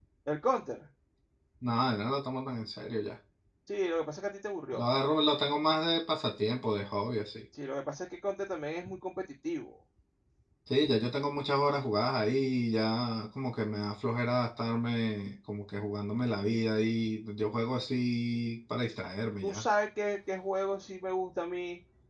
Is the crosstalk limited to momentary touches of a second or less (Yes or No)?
Yes